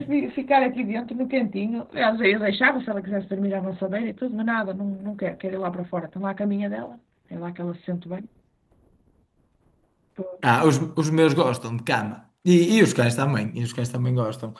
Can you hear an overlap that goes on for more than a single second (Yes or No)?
No